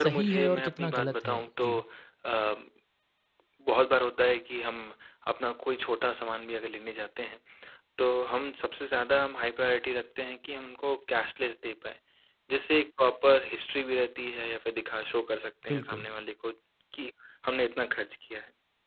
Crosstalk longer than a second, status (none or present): present